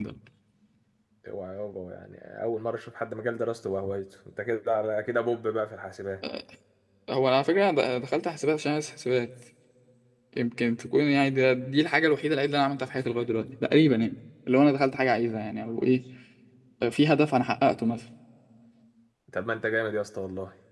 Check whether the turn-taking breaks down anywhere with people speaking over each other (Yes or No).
No